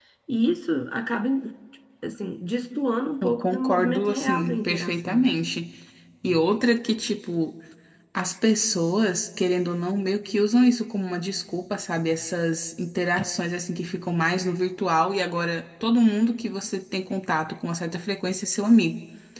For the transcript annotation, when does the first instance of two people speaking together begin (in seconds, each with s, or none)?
3.2 s